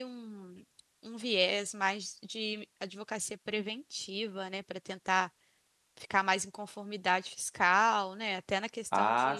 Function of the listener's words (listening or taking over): taking over